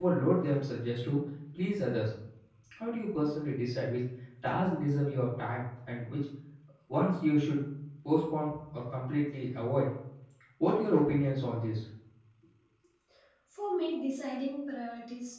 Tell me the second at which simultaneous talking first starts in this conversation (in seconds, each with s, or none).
none